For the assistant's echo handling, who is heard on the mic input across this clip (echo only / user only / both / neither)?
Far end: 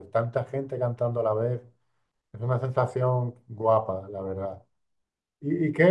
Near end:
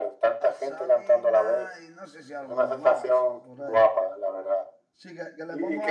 both